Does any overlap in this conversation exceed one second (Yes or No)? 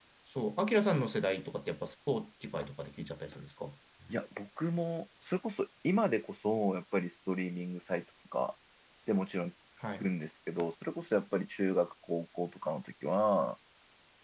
No